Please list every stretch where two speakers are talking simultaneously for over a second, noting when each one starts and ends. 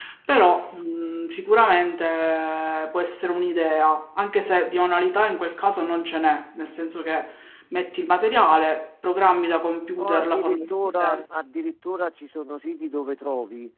10.0-11.2

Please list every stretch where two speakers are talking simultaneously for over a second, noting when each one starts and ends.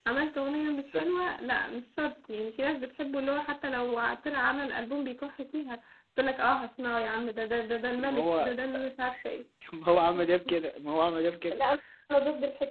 none

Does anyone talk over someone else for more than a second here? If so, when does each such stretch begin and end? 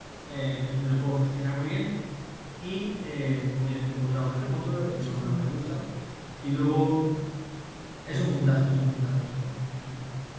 4.1-5.5

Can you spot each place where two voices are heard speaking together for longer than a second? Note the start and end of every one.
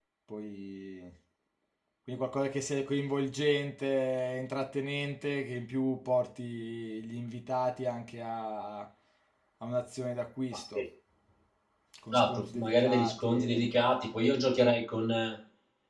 12.1-13.7

